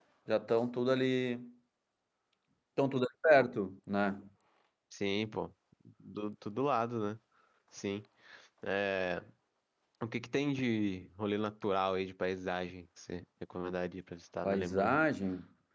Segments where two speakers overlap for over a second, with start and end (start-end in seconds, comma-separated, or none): none